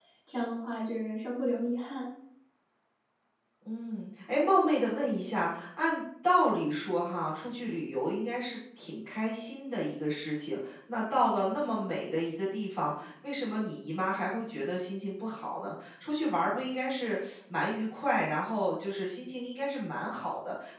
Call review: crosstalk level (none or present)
none